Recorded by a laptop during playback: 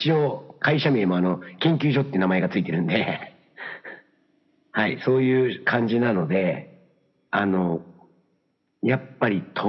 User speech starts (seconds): none

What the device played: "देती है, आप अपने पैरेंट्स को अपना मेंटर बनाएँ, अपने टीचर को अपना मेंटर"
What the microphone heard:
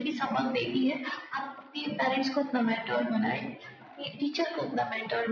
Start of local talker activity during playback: none

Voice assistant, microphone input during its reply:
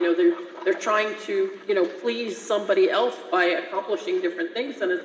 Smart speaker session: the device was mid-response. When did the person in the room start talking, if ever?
none

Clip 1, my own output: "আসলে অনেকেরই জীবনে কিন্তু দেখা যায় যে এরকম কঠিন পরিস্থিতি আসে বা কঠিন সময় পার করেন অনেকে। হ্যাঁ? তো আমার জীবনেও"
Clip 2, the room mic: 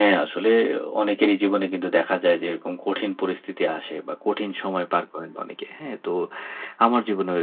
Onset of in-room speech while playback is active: none

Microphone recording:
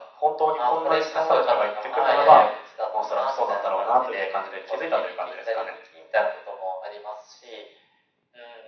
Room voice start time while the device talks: none

